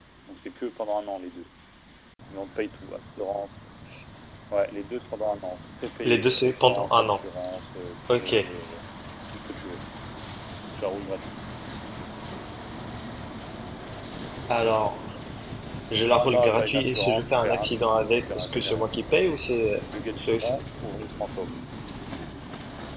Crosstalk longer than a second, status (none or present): present